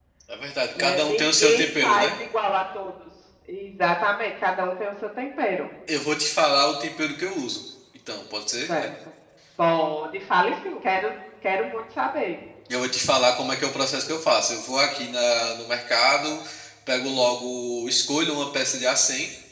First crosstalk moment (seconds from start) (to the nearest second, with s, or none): 1 s